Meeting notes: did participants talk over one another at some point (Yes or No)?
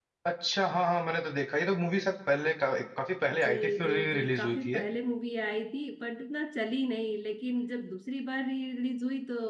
Yes